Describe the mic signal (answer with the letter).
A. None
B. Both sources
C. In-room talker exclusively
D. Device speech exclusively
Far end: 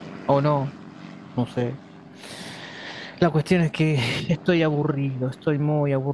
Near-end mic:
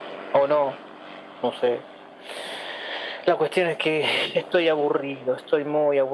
D